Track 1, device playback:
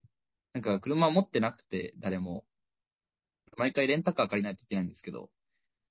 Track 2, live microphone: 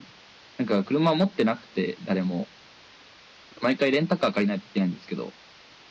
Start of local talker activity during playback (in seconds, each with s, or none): none